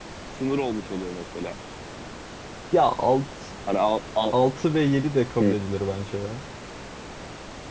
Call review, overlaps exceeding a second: none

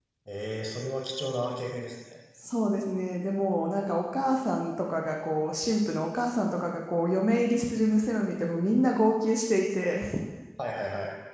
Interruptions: none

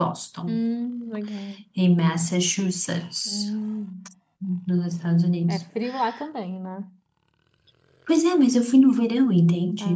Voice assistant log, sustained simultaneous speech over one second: none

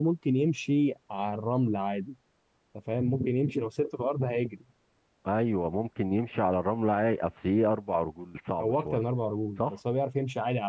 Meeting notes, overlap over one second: none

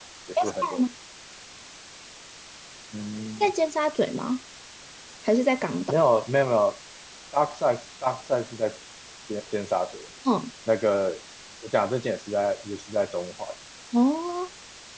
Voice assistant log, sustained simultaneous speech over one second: none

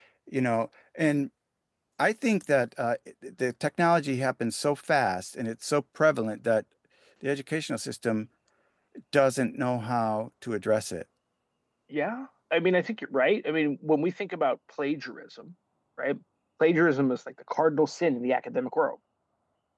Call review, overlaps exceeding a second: none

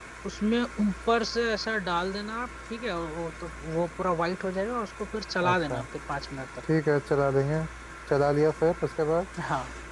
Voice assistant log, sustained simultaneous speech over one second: none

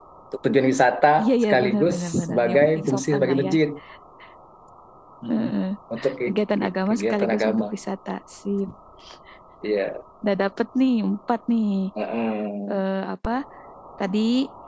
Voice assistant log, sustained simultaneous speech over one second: present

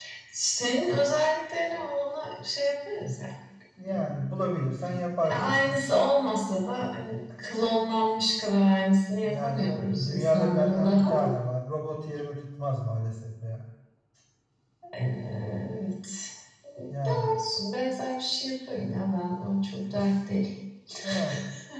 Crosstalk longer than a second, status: present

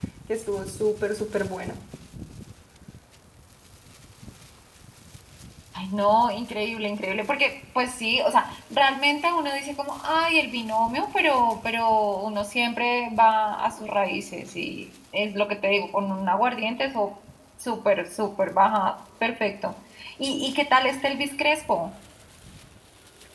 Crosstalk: none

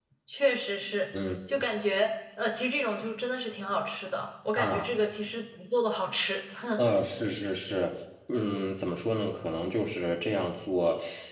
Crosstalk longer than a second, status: none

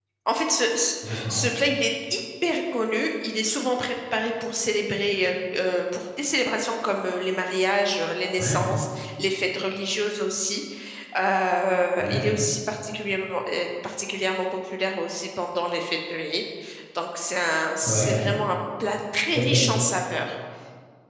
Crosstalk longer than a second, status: none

